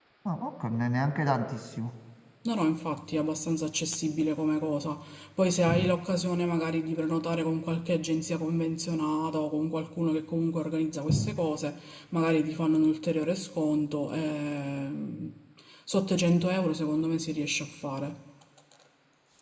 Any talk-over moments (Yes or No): No